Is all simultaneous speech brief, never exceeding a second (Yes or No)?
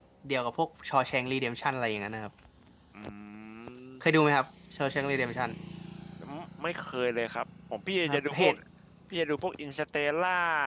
Yes